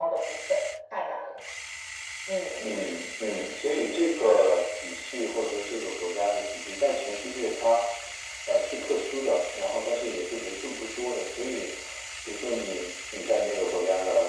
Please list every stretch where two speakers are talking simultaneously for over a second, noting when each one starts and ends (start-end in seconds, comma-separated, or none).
none